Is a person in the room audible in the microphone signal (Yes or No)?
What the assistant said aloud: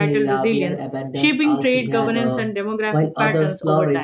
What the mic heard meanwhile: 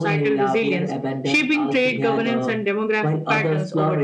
No